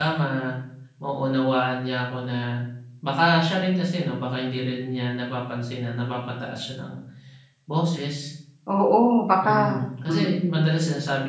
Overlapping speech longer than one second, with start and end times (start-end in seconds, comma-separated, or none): 9.4-10.7